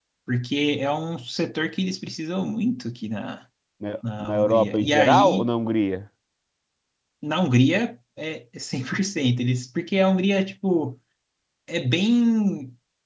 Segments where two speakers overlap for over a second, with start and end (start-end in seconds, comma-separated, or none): 4.2-5.5